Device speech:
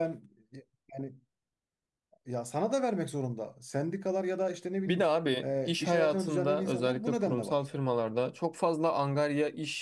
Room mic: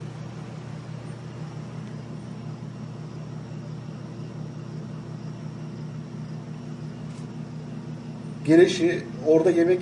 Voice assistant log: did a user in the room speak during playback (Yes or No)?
Yes